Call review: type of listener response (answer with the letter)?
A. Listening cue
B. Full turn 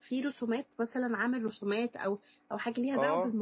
B